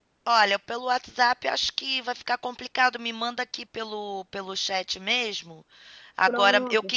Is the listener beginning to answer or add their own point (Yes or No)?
No